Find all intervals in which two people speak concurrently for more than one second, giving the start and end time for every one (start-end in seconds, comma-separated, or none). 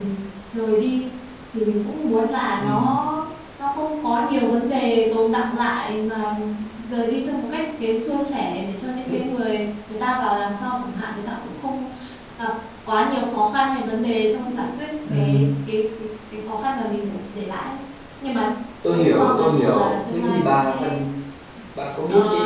18.9-21.0